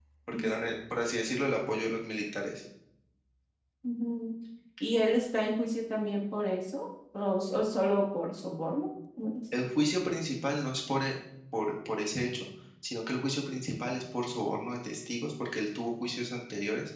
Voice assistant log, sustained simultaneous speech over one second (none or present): none